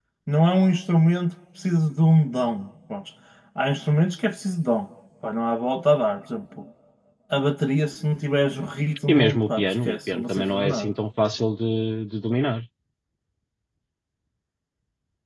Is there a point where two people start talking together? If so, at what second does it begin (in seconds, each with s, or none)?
9.1 s